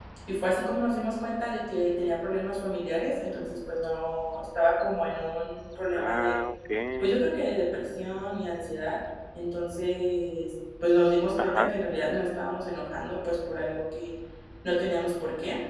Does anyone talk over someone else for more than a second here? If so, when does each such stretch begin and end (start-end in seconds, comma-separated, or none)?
none